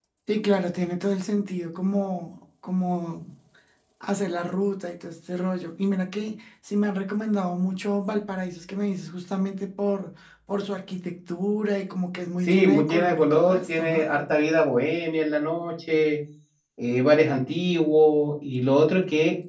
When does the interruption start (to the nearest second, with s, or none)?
12 s